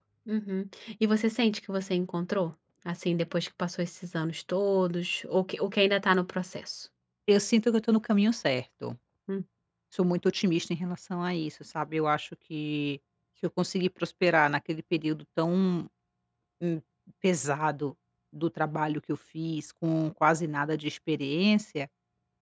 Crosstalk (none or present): none